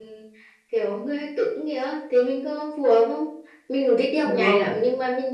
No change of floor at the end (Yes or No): Yes